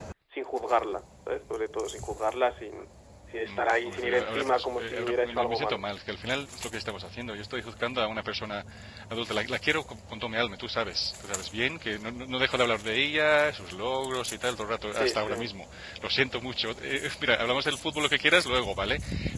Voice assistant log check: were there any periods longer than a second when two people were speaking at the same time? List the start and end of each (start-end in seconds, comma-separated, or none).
3.5-5.8